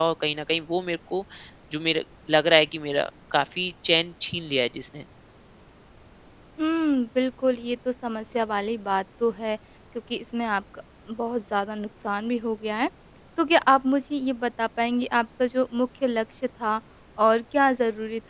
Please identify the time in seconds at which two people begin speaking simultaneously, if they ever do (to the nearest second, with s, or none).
none